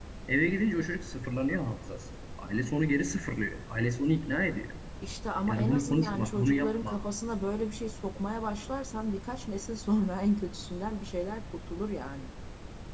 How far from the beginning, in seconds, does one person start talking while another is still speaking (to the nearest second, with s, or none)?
5 s